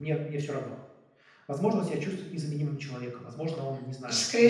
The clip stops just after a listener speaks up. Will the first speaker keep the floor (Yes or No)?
No